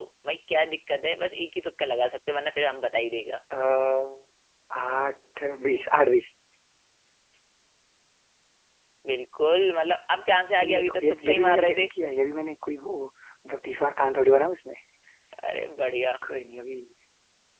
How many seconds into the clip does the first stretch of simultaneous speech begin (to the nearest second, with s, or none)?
11 s